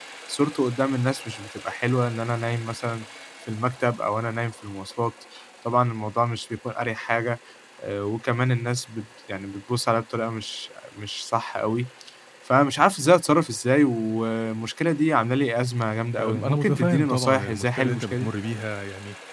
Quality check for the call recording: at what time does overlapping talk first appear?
16.2 s

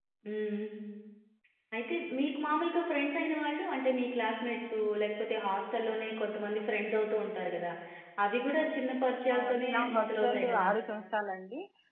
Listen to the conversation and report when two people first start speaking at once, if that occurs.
9.3 s

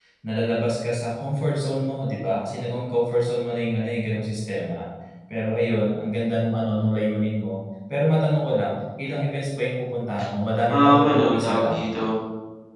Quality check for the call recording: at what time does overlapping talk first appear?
10.7 s

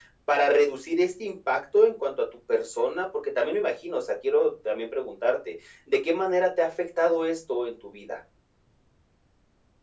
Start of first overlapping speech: none

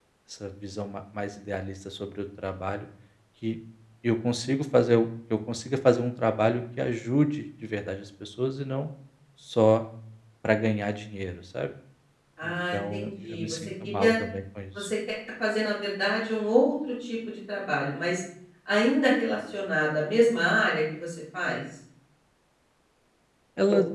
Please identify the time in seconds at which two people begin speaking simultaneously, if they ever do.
12.4 s

